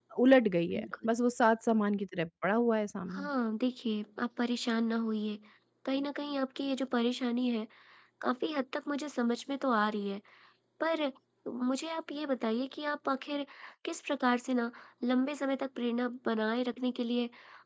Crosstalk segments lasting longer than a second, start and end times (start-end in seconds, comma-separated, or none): none